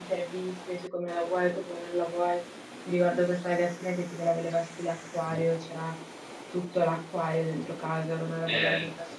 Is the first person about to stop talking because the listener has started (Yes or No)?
Yes